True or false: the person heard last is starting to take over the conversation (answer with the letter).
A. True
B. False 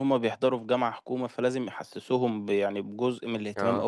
B